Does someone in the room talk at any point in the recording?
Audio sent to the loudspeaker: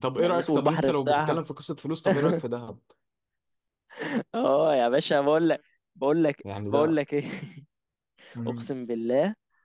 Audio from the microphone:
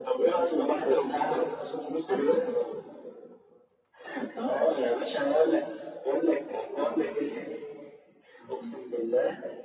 No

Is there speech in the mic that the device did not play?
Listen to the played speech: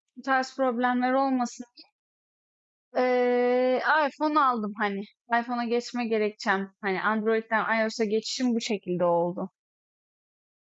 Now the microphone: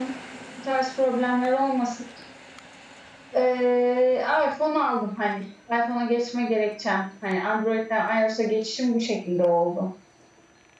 No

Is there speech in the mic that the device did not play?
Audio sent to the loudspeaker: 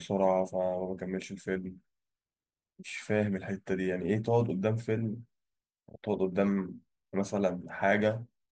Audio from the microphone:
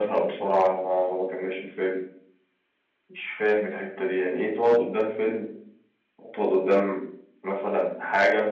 No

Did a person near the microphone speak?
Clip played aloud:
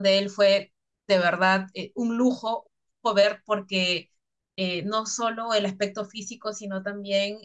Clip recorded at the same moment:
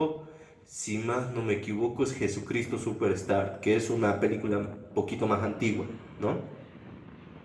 Yes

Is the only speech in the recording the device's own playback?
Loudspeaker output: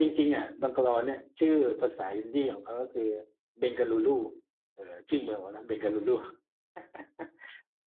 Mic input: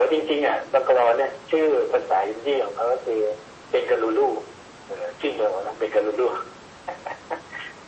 Yes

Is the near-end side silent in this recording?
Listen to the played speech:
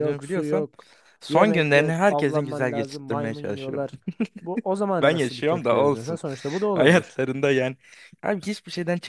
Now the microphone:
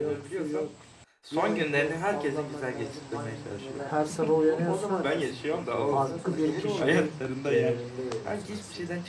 No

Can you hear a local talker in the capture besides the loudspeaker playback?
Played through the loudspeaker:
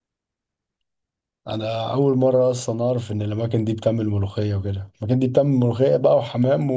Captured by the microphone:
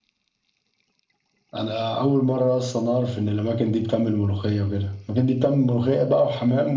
No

